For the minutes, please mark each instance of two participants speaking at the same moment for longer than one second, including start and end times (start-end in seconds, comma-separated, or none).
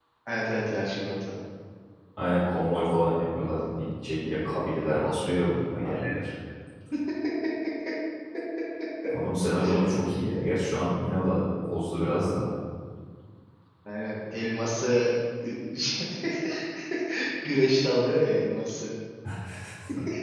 none